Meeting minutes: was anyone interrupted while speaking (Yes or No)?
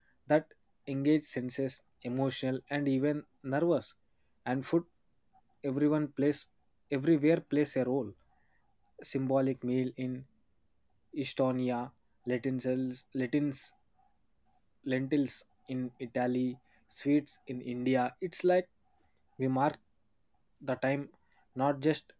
No